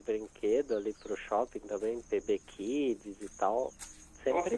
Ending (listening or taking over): taking over